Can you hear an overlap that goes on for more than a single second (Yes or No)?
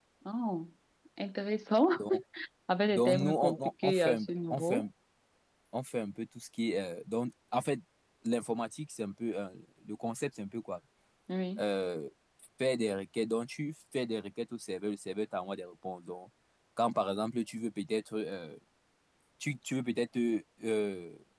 Yes